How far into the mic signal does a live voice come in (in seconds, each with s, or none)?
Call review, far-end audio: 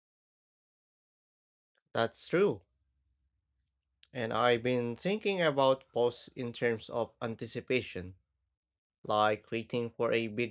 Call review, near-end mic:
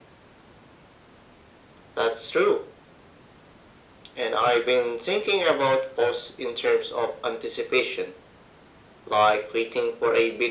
none